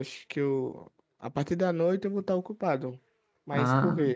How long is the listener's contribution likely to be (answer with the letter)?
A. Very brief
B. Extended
B